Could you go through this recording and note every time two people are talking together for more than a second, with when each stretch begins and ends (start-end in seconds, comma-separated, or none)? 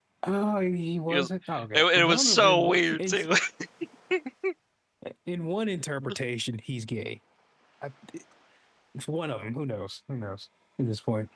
1.7-3.1